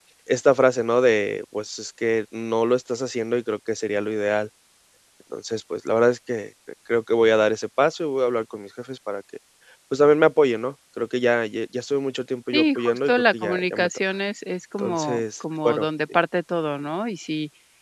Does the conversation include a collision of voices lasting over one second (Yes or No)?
Yes